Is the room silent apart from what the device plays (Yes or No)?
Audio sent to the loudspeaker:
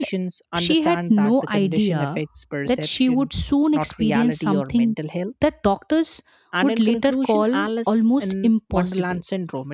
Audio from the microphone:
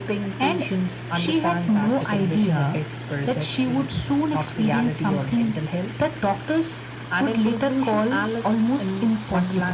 Yes